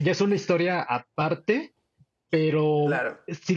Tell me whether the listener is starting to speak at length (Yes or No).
No